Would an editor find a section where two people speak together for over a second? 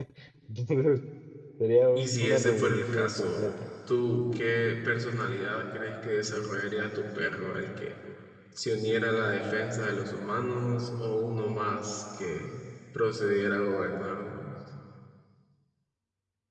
Yes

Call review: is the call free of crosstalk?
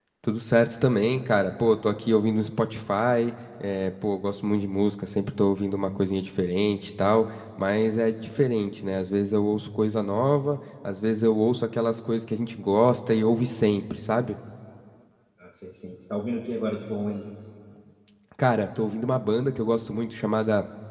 Yes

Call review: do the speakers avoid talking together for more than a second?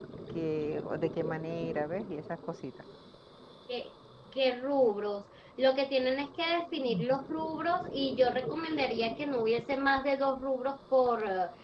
Yes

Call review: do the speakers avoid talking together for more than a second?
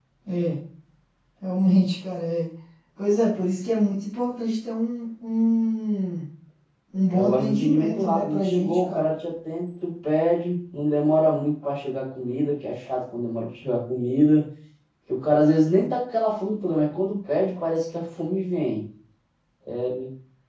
No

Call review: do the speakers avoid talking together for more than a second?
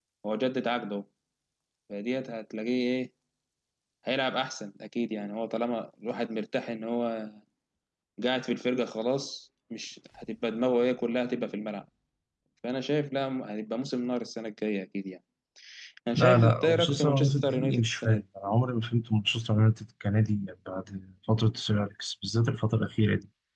No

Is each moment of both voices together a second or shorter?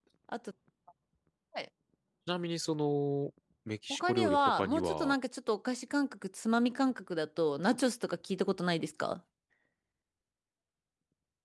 No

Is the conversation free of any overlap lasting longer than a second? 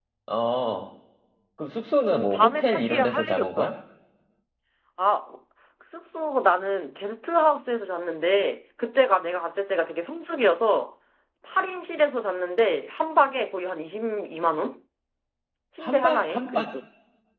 No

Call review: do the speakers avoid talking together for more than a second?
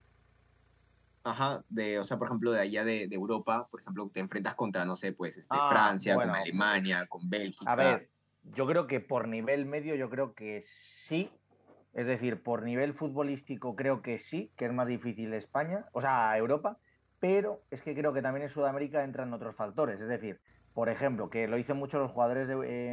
No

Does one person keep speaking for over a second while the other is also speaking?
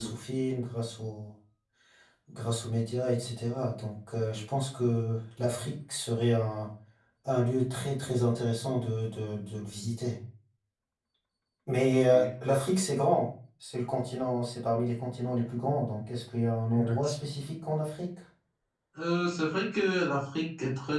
No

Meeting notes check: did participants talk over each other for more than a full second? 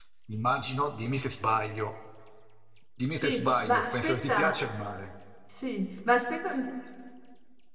Yes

